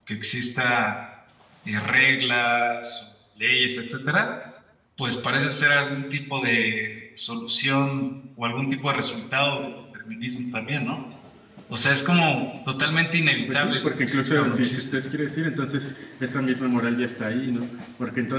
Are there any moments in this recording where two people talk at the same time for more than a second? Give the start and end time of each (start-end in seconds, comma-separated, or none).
13.5-15.0